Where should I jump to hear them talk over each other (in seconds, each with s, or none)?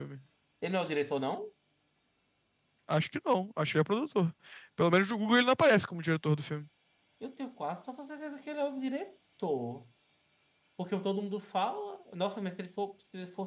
none